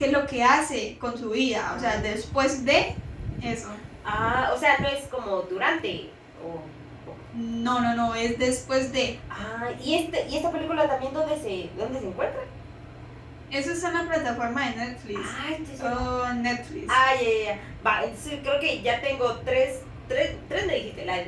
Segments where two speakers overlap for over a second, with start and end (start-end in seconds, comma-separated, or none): none